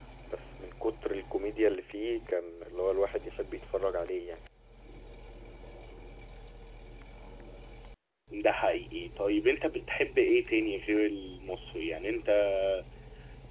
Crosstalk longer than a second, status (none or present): none